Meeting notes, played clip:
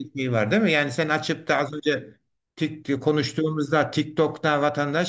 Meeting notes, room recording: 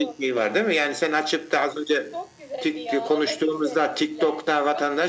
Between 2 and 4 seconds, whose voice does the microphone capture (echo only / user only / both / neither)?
both